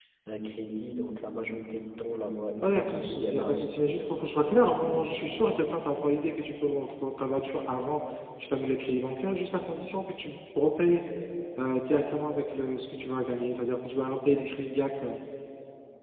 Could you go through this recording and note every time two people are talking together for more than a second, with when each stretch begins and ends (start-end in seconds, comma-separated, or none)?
2.6-5.4